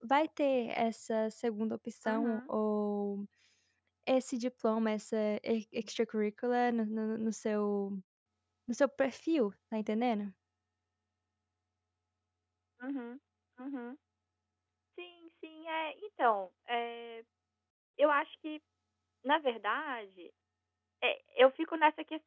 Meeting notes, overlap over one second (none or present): none